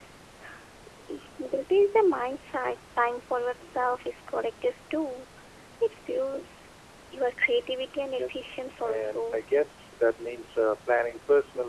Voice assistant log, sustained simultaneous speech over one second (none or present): present